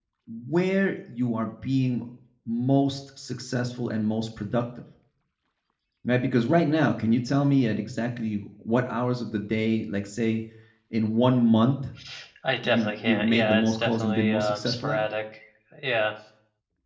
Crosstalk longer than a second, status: present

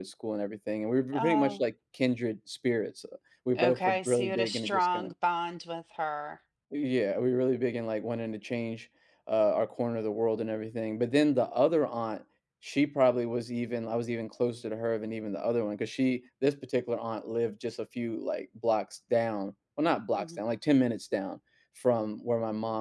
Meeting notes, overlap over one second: present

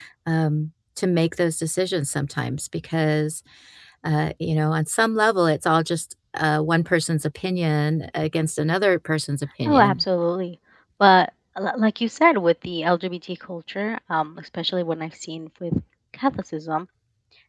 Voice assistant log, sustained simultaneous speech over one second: none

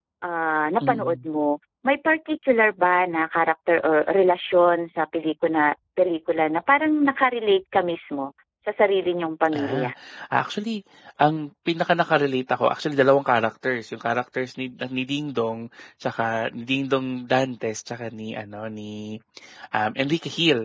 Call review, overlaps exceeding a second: none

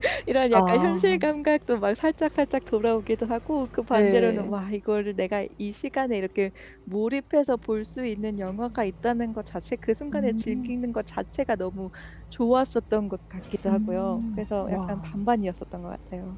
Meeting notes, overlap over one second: present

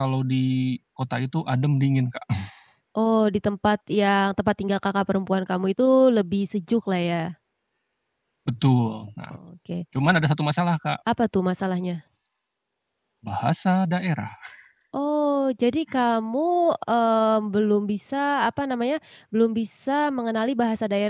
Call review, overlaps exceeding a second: none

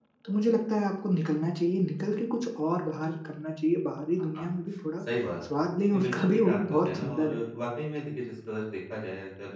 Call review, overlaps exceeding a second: present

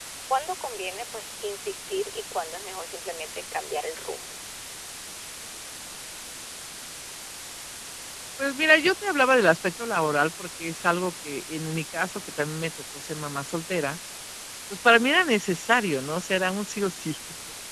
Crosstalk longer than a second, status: none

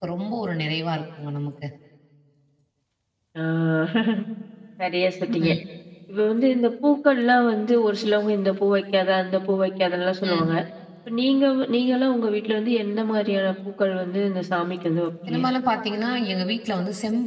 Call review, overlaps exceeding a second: none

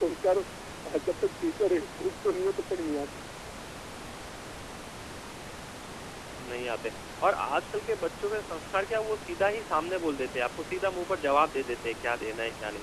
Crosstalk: none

